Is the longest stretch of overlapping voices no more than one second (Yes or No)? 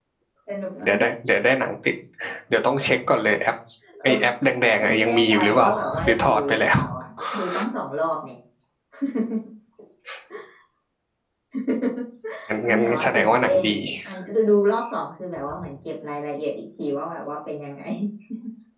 No